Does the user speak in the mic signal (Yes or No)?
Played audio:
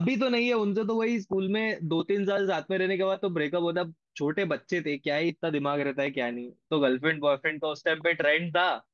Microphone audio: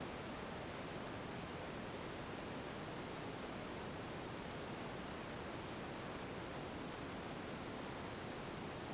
No